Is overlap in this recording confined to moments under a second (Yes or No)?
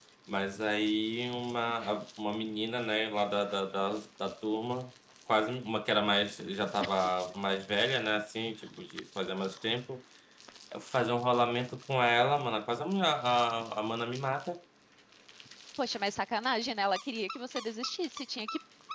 Yes